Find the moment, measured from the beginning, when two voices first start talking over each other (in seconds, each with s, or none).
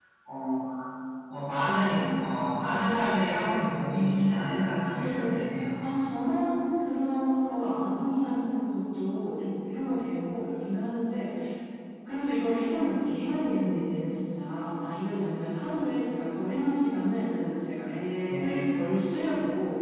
3.9 s